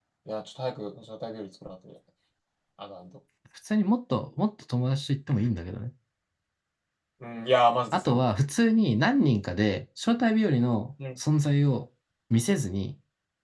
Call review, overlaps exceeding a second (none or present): none